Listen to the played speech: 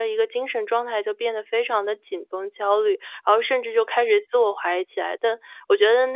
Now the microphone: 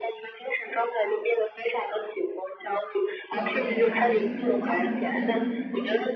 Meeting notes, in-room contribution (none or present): present